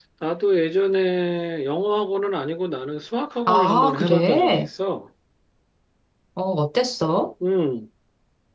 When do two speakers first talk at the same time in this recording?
3.5 s

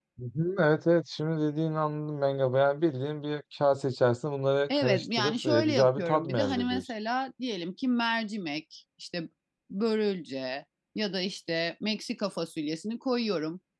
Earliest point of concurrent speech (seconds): 4.7 s

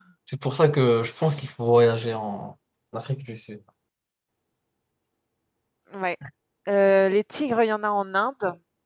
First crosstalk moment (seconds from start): none

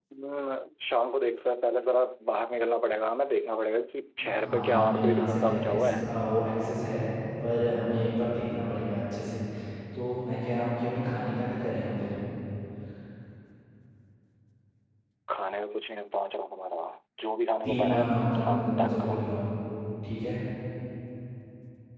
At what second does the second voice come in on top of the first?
4.4 s

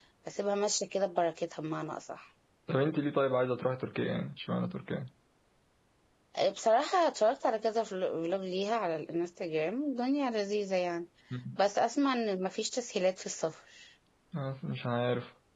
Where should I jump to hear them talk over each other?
none

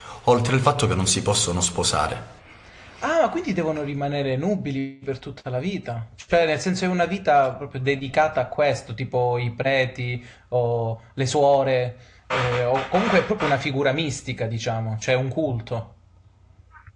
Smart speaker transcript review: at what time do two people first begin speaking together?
none

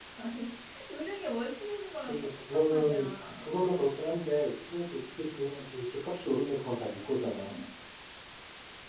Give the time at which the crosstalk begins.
2.0 s

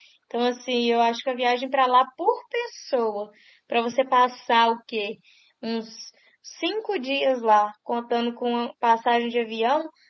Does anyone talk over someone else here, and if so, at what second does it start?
none

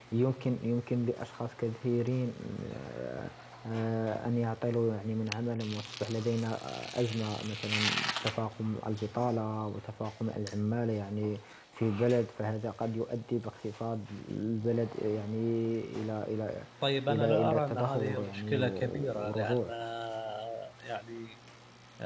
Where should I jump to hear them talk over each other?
17.1 s

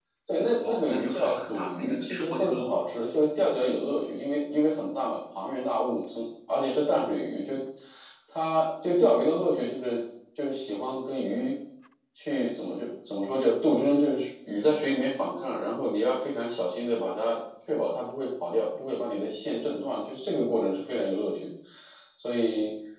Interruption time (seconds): 0.6 s

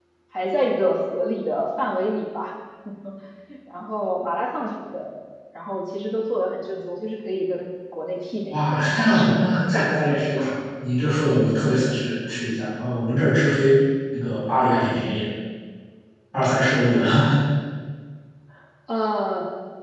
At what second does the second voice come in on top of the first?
8.5 s

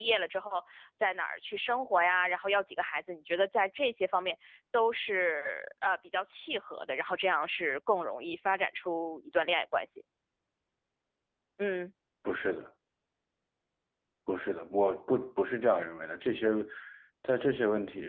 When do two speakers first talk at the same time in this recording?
none

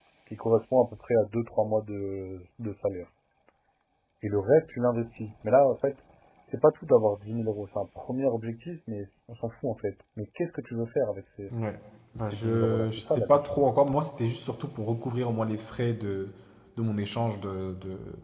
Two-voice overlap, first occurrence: 12.2 s

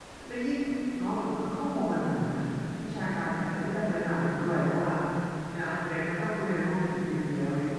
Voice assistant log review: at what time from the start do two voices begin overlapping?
none

